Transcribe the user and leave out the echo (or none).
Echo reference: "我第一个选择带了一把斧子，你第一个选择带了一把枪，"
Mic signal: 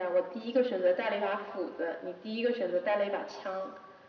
none